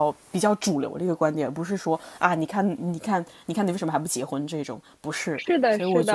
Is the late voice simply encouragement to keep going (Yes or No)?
No